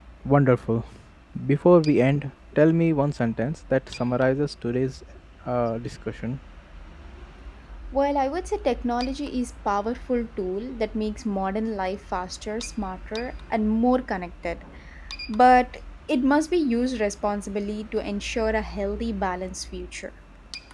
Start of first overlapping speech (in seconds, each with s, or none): none